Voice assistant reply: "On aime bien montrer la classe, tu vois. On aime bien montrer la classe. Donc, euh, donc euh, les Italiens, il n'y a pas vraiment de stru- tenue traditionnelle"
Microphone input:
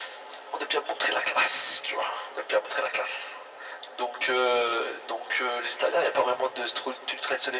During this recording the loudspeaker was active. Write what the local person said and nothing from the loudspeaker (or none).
none